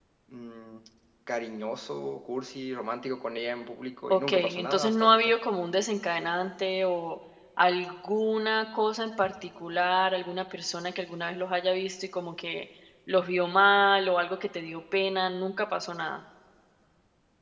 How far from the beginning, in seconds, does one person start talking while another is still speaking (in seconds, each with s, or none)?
4.1 s